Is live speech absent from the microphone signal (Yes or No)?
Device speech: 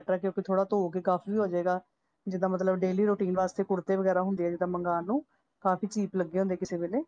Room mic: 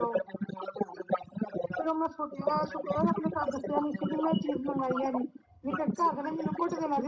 No